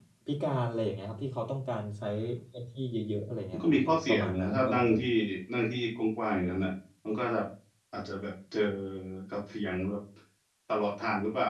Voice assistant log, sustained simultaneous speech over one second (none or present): present